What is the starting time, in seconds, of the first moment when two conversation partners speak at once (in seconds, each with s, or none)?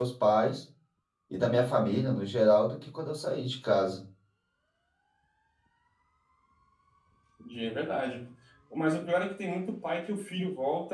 none